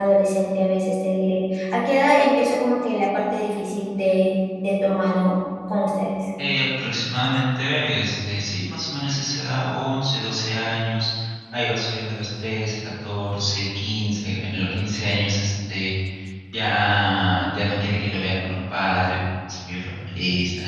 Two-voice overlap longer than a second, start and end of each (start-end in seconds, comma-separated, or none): none